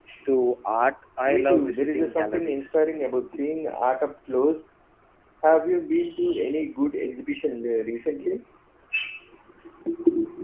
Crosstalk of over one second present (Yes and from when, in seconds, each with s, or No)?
Yes, from 1.2 s